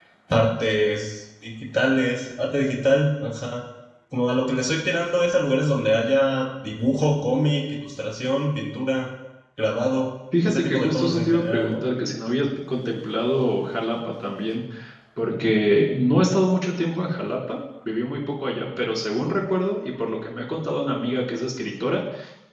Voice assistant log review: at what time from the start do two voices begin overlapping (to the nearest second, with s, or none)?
10 s